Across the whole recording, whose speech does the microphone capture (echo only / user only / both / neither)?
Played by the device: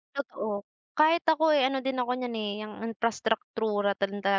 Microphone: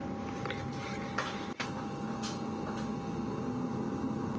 neither